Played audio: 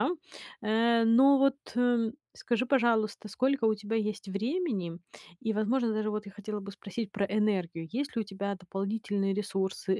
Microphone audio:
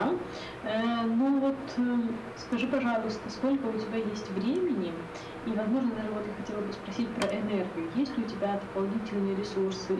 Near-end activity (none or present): none